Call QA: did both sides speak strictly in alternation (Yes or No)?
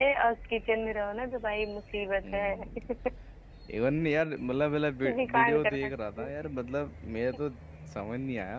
No